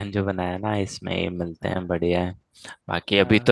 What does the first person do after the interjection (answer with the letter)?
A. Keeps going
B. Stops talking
A